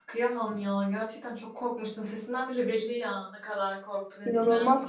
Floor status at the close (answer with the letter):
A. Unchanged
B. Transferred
B